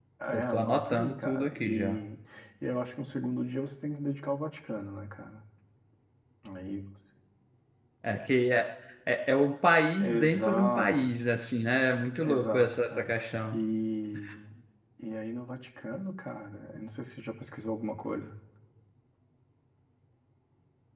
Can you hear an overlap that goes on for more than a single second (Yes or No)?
Yes